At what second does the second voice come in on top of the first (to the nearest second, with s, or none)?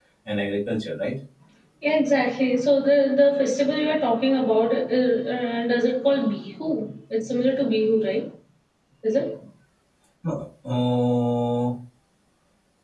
none